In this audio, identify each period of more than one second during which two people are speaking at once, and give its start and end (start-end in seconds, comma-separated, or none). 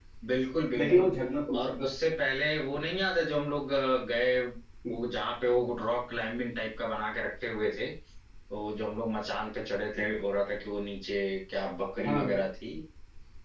none